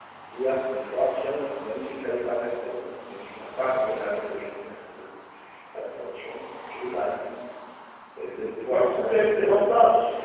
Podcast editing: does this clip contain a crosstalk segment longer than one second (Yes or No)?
Yes